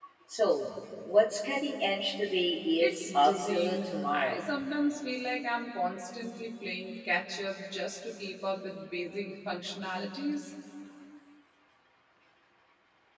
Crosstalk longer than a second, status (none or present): present